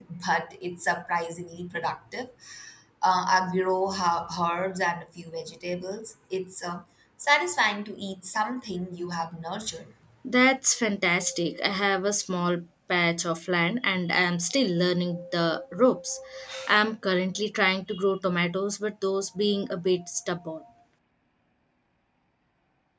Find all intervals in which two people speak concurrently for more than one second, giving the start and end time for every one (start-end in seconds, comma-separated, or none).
none